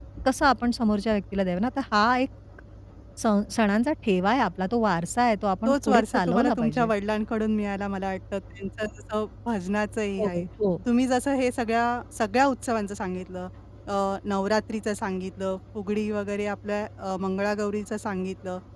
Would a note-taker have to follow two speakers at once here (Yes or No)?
Yes